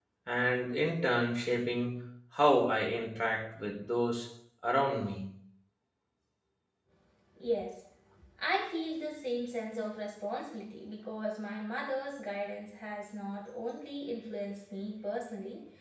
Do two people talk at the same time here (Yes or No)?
No